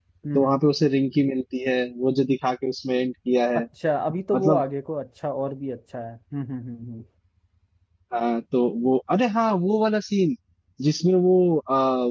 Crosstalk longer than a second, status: none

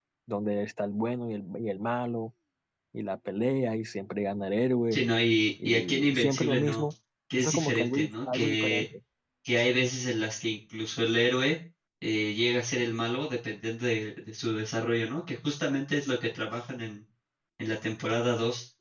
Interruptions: present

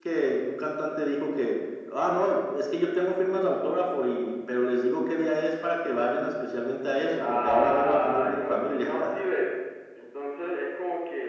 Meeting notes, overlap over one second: present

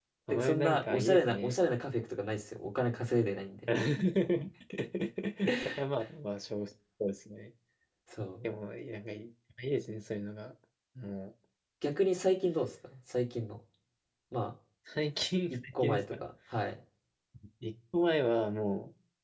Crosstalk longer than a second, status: present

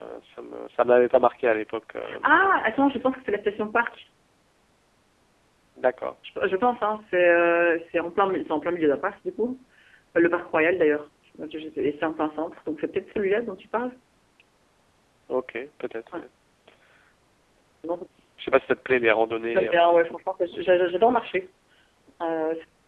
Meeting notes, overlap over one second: none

